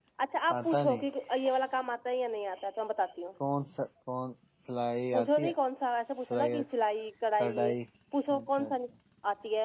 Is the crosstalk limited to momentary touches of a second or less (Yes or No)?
Yes